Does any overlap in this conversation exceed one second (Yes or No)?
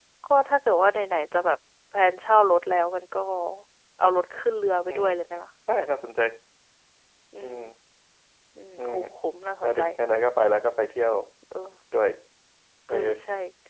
No